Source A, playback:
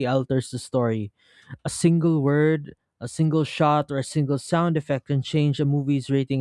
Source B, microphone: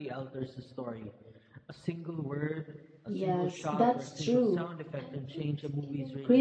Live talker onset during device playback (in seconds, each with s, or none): 3.0 s